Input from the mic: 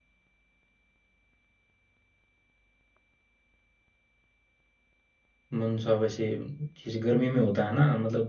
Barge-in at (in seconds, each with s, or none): 5.5 s